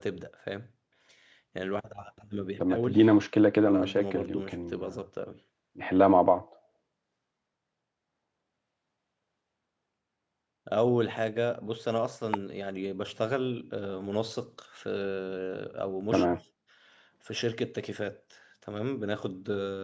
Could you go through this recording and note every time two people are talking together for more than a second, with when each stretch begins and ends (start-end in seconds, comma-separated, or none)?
3.6-4.9